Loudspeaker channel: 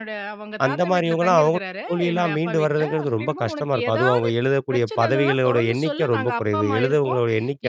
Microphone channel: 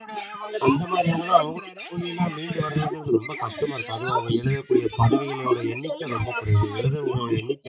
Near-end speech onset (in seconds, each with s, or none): none